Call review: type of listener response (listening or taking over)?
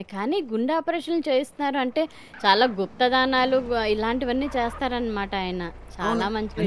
taking over